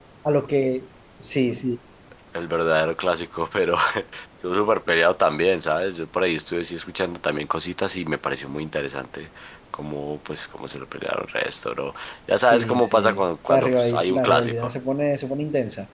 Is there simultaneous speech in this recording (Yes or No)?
Yes